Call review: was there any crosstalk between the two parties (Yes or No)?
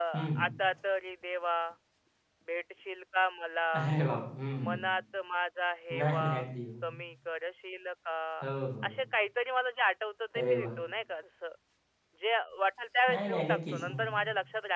Yes